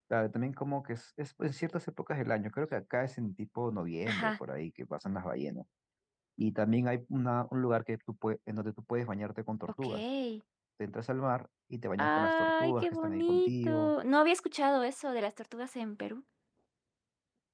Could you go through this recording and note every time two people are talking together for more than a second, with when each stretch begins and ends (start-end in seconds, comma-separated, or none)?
12.0-13.9